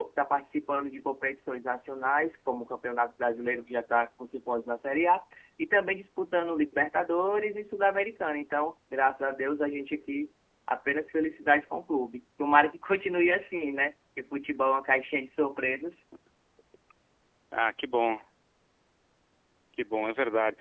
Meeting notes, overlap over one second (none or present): none